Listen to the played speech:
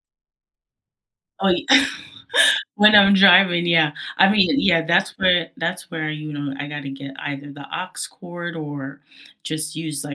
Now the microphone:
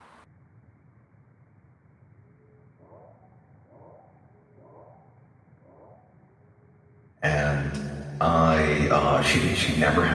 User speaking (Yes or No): Yes